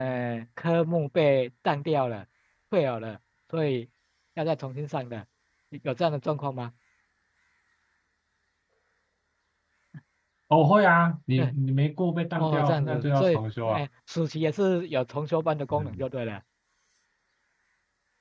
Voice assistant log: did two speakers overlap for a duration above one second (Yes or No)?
Yes